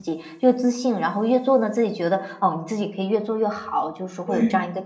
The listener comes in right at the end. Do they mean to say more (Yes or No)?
No